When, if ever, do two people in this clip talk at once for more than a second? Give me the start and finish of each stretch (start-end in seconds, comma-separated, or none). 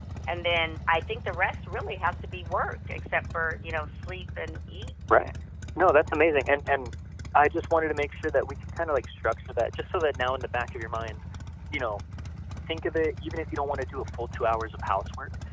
none